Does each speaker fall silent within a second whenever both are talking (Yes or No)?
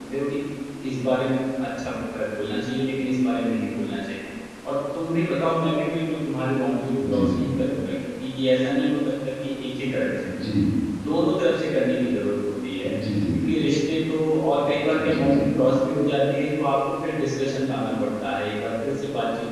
Yes